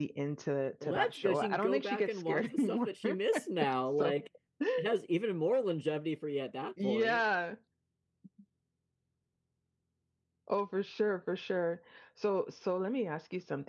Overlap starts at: 0.8 s

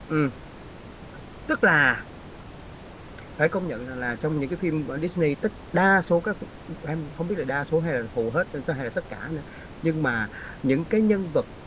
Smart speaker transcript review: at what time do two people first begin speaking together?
none

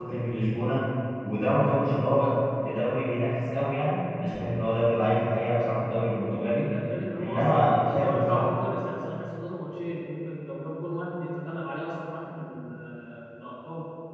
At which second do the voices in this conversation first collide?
7.2 s

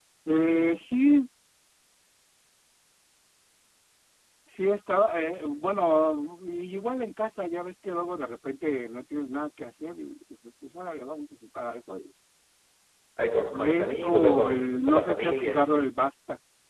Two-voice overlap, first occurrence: 13.6 s

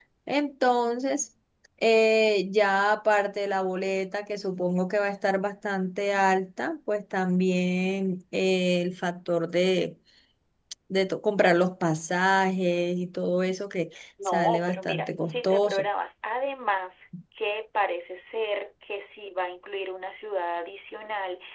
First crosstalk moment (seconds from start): 14.2 s

